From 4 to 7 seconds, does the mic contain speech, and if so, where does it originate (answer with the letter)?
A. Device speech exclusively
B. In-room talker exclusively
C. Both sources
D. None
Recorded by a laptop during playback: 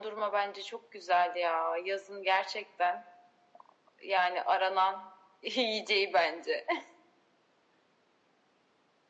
A